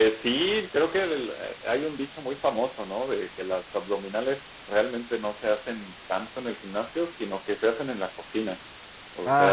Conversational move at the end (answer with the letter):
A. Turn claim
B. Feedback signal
B